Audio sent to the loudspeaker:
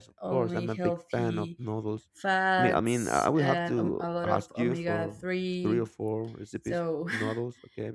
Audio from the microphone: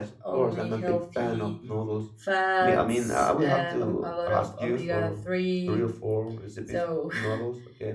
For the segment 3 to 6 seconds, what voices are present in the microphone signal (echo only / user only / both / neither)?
echo only